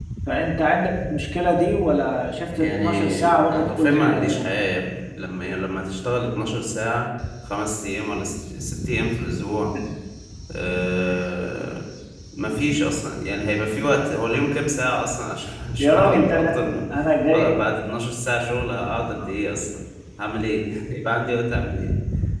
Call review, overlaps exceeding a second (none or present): present